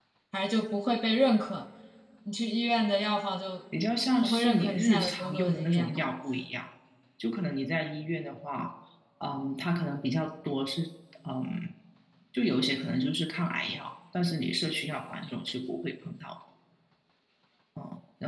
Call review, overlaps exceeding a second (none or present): present